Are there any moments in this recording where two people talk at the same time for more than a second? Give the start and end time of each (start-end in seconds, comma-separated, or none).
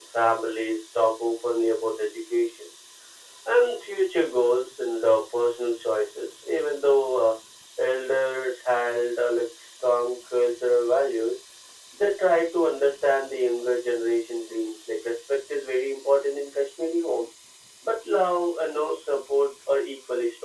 none